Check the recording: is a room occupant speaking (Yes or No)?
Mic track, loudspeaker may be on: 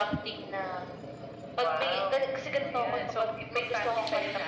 No